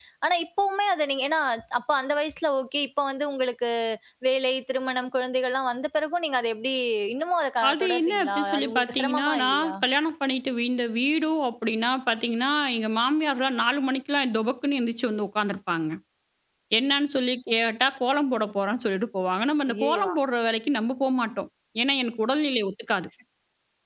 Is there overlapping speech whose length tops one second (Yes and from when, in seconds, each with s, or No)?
Yes, from 7.7 s